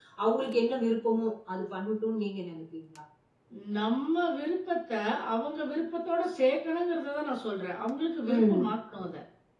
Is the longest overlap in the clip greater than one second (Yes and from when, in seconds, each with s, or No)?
No